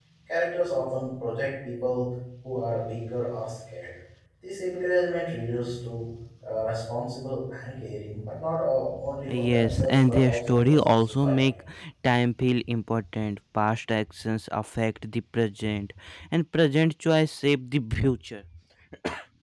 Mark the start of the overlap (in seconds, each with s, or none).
9.3 s